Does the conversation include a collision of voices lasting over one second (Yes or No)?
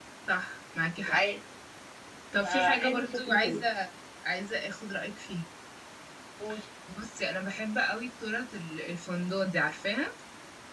Yes